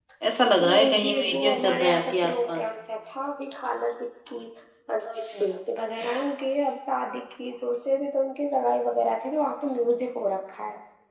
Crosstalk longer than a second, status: present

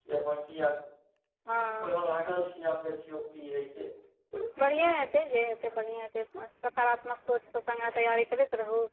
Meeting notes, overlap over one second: none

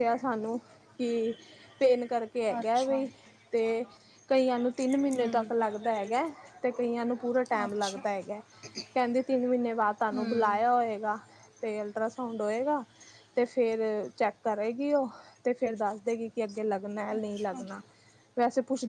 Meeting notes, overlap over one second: none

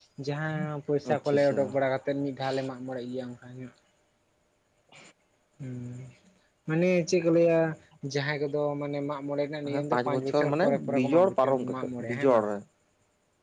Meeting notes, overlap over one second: present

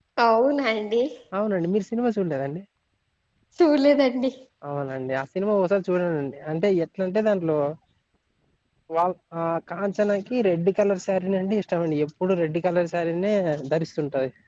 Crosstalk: none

